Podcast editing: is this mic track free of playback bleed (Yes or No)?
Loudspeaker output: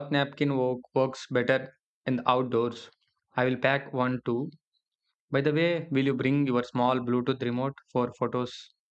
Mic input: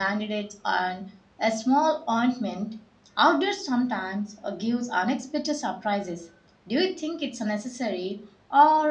Yes